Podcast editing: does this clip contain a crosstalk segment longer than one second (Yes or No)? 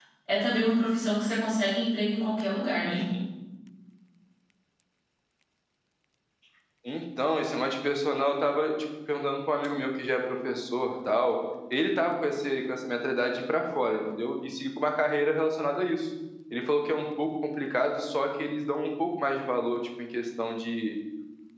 No